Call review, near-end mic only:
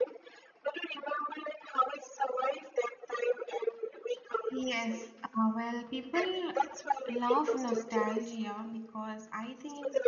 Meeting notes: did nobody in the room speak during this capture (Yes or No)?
No